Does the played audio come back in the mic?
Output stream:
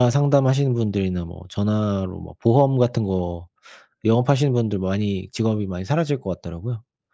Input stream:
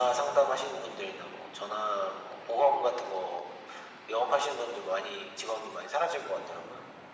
Yes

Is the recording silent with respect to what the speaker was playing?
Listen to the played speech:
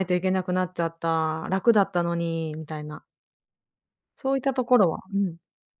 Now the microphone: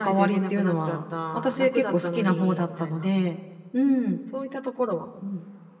No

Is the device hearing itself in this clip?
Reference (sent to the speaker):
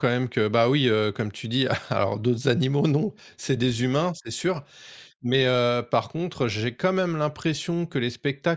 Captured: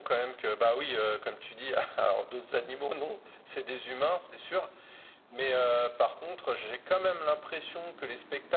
Yes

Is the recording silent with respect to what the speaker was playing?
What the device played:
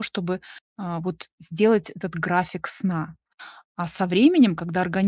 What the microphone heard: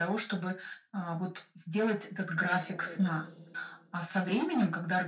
No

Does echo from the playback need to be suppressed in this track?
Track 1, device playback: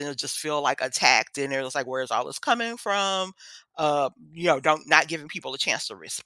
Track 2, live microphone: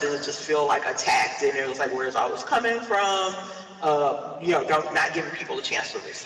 Yes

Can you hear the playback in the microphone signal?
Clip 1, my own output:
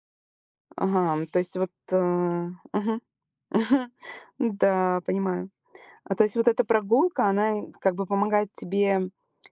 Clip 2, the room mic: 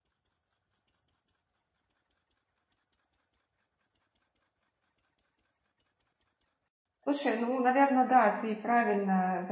No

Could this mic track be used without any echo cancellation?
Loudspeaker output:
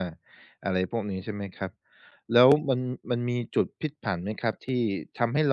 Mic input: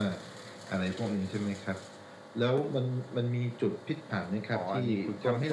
No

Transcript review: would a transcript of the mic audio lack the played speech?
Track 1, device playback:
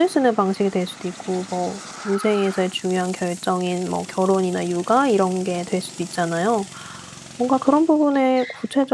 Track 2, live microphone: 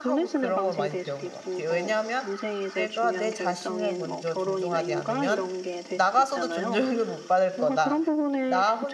No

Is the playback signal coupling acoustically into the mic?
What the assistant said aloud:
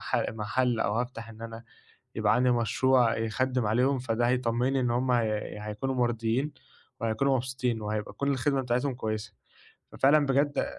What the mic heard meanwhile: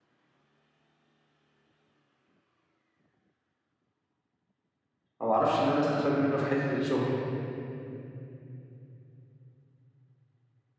No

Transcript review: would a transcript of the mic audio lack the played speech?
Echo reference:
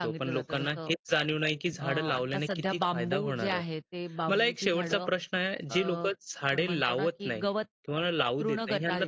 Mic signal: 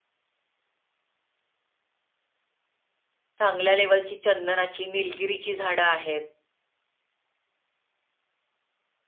Yes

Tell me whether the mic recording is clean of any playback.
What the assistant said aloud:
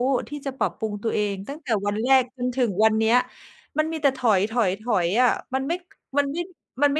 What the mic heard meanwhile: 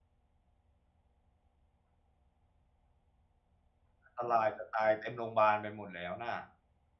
Yes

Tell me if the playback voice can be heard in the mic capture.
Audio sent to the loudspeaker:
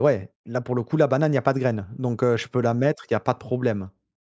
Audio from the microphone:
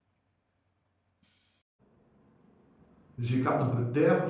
No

